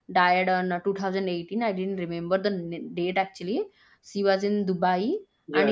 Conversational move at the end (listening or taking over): listening